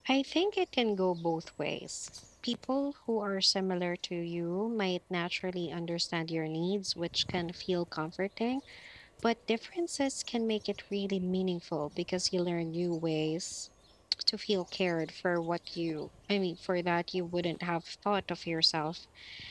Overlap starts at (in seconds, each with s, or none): none